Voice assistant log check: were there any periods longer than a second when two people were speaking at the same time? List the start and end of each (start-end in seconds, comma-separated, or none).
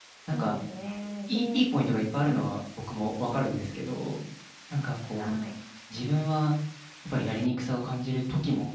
none